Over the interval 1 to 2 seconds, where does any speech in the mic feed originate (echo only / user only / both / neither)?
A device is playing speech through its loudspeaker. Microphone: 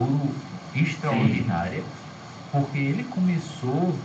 both